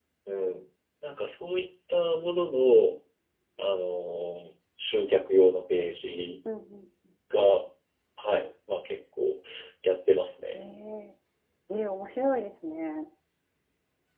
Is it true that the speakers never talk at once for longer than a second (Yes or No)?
Yes